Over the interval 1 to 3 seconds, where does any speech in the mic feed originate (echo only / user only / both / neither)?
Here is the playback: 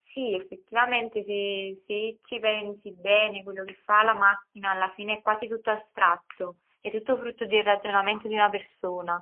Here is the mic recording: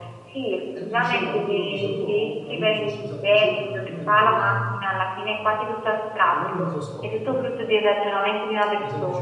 both